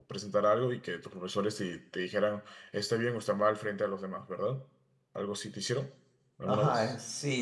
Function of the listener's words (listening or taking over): taking over